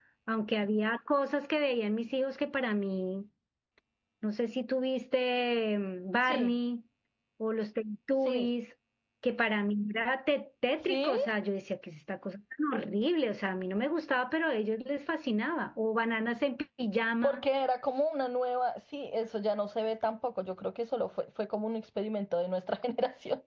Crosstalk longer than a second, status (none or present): none